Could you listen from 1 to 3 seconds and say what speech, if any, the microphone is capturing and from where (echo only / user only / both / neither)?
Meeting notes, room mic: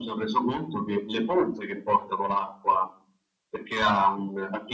echo only